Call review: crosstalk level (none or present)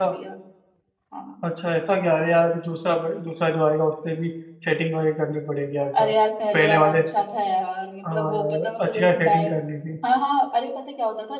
present